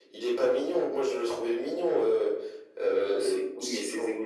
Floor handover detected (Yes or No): Yes